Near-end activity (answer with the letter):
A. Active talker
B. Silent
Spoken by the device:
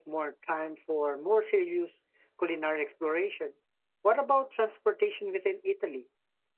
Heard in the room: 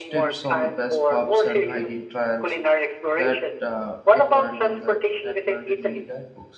A